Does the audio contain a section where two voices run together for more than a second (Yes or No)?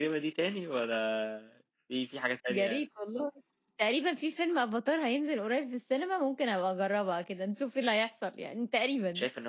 No